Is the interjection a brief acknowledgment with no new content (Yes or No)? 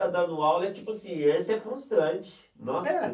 No